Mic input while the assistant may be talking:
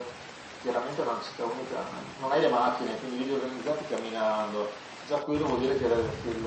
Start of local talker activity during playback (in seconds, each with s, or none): none